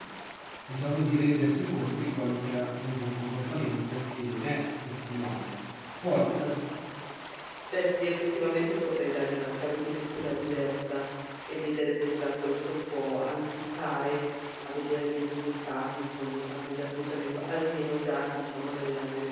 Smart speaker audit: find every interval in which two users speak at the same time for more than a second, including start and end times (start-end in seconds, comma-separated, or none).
none